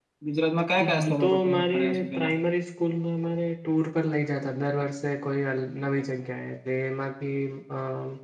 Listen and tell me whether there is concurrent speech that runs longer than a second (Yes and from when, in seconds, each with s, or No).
Yes, from 0.9 s